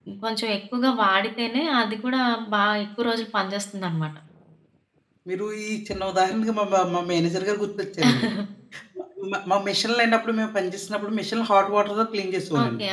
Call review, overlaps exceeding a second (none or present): none